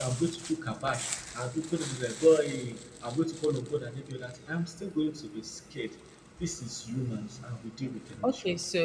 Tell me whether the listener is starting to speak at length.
Yes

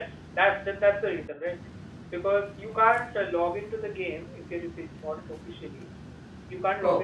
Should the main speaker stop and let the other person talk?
No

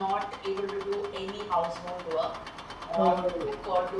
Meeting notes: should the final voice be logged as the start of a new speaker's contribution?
No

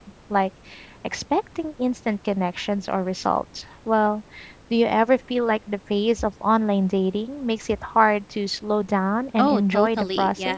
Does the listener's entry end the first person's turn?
Yes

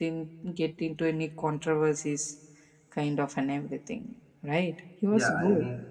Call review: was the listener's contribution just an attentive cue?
No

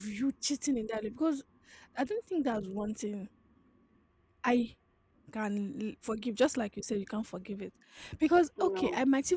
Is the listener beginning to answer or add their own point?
No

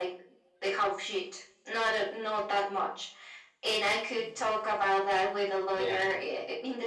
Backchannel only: Yes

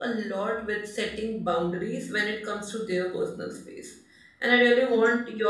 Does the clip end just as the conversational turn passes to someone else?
No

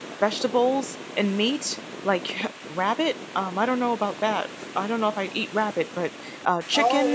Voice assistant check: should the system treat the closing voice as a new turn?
Yes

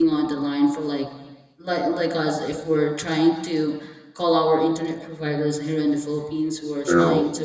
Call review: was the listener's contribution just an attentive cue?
Yes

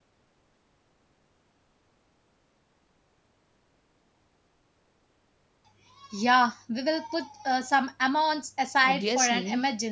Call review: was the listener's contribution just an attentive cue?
No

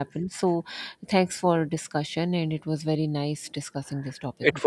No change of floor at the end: No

